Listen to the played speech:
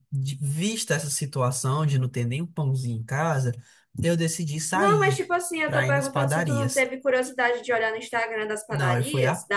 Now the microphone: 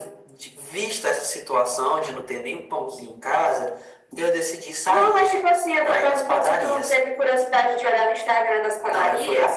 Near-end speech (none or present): none